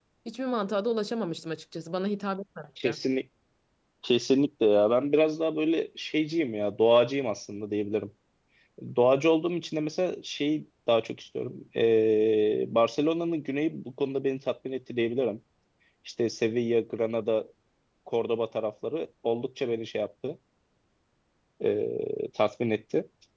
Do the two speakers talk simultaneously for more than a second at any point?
No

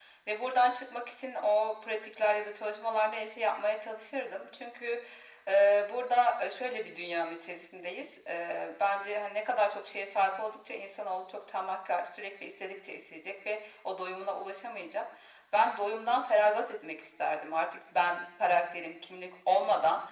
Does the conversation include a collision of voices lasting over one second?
No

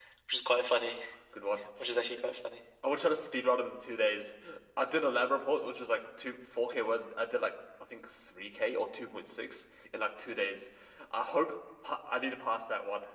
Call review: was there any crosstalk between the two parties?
No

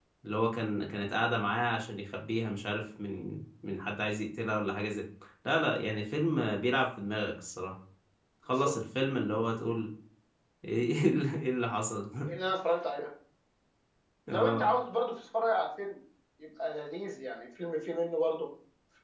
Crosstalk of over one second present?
No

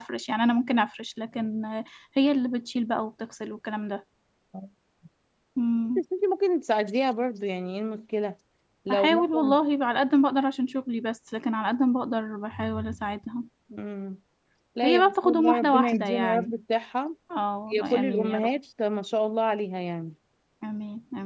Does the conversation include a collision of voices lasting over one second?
Yes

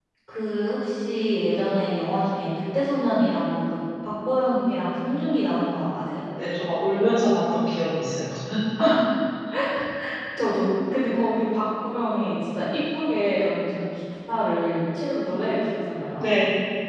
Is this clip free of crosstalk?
Yes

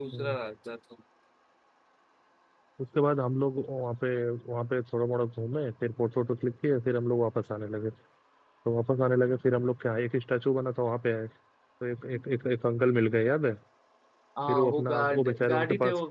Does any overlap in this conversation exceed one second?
Yes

